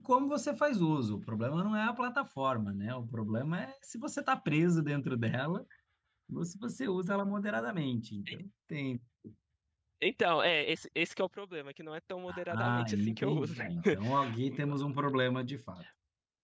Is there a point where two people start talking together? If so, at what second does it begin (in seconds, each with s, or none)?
12.3 s